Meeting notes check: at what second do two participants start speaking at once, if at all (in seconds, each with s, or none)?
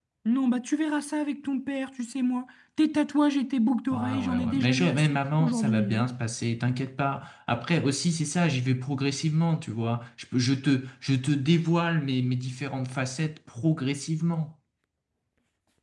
3.9 s